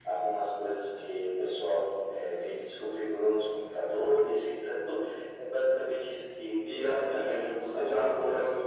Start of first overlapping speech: 6.6 s

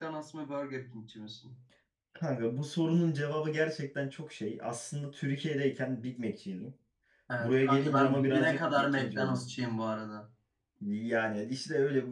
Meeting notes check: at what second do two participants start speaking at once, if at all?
7.4 s

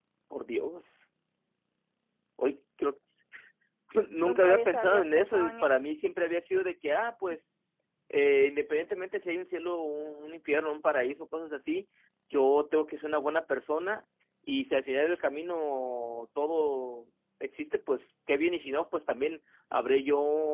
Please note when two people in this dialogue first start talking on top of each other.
4.2 s

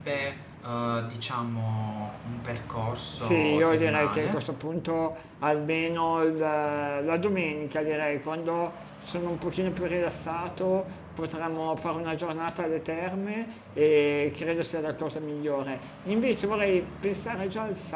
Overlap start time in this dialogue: 3.2 s

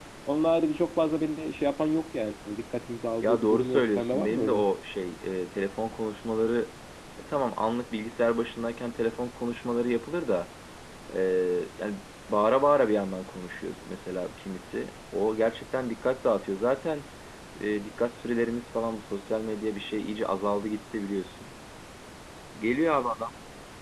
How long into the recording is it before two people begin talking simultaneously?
3.2 s

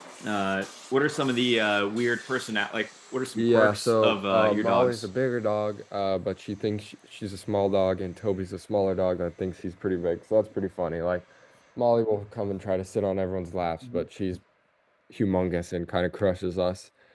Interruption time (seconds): 3.4 s

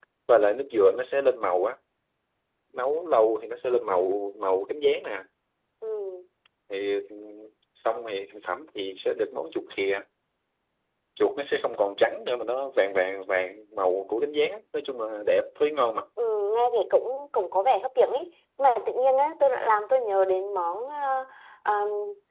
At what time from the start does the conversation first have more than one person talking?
none

